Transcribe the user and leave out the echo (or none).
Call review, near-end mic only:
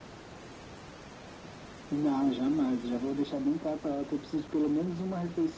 none